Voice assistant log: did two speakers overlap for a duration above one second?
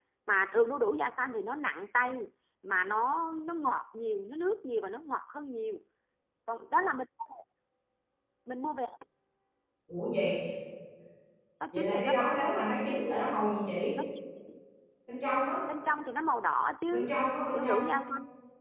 No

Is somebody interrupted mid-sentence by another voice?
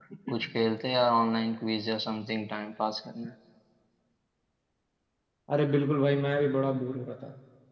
No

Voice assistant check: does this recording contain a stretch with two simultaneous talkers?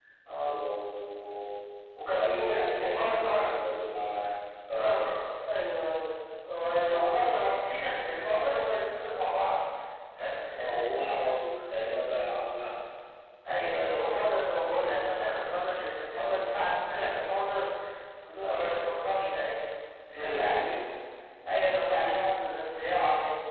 Yes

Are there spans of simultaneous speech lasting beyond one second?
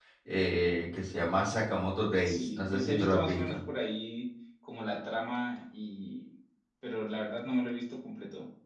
Yes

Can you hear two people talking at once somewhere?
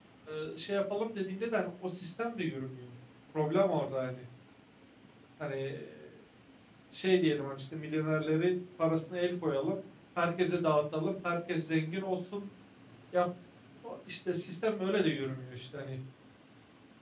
No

